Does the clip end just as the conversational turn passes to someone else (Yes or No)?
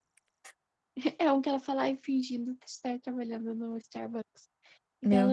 No